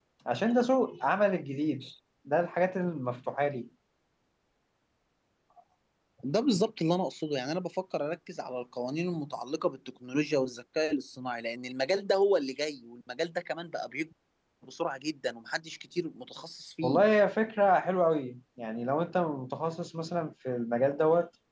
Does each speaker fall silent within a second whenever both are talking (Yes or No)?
Yes